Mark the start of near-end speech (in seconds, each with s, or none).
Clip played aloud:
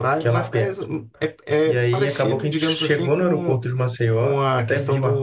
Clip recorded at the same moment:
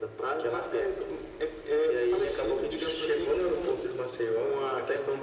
none